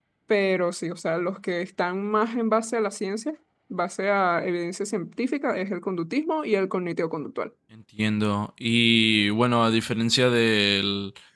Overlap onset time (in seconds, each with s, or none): none